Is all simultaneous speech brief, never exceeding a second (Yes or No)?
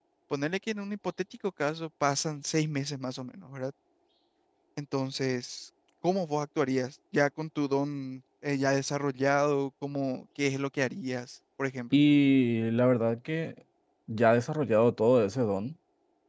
Yes